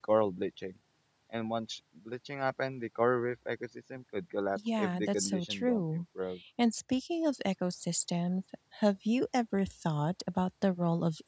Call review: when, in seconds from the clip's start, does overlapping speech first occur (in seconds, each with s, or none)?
4.6 s